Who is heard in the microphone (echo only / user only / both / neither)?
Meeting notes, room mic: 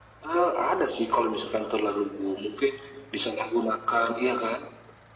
echo only